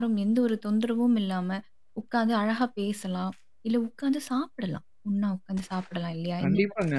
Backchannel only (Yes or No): No